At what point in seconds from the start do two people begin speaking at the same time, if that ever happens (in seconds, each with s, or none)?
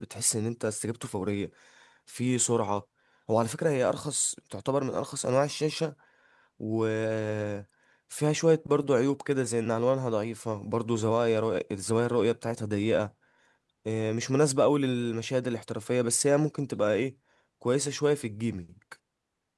none